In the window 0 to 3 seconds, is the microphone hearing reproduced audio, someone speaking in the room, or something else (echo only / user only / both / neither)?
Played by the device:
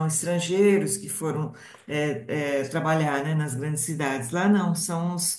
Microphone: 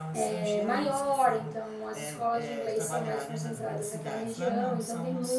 both